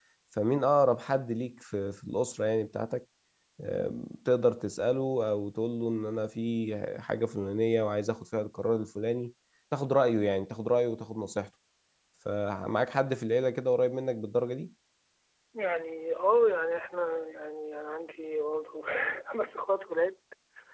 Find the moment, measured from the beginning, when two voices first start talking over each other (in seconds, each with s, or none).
none